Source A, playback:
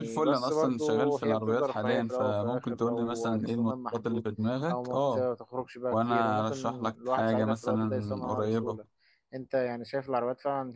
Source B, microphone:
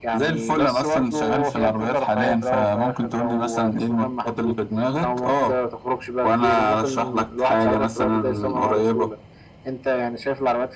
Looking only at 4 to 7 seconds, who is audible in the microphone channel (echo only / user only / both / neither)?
echo only